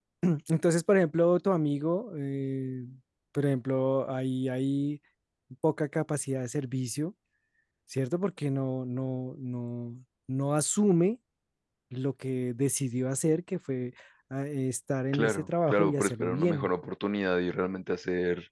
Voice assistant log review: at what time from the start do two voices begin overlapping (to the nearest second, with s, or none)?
15 s